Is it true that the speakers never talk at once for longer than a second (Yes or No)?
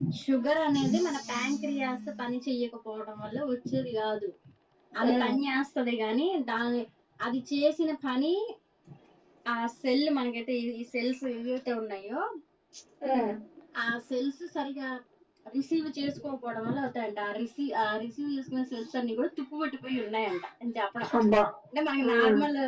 No